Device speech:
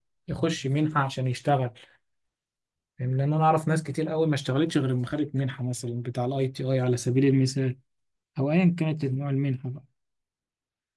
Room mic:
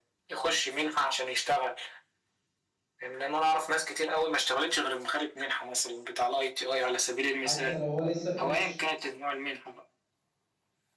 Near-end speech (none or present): present